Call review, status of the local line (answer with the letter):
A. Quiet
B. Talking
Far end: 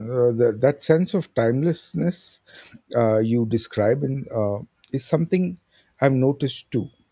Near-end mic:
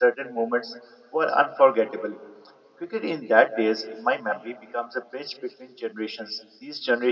B